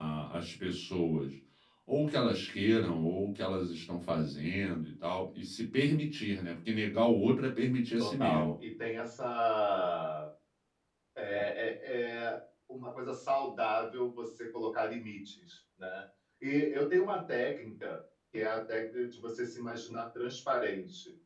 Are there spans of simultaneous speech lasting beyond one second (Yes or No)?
No